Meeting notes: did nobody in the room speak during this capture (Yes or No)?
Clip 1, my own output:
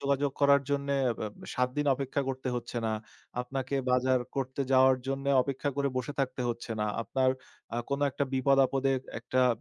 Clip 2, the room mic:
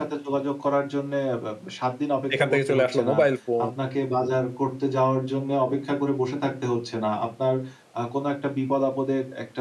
No